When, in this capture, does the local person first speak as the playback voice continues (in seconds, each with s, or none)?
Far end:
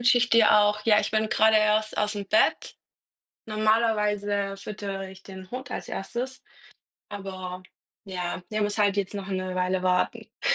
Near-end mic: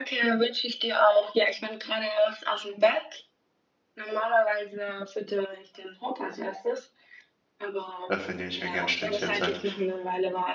8.1 s